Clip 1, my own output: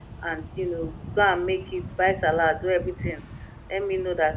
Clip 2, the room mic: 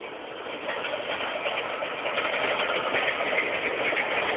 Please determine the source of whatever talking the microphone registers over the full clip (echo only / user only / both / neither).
neither